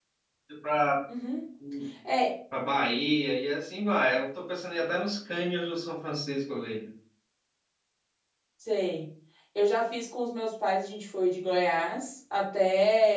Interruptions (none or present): none